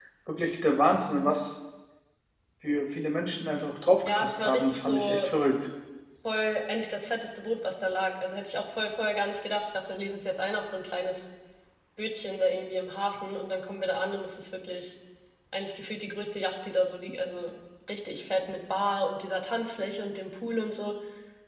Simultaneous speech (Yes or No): Yes